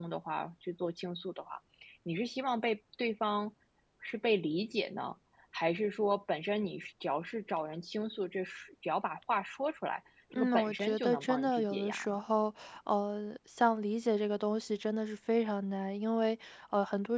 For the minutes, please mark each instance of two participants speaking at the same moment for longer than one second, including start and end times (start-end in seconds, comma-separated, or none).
10.3-12.2